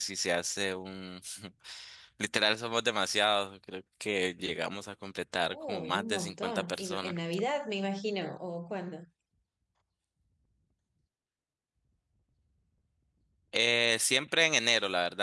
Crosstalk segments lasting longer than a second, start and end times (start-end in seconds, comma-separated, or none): 5.5-7.1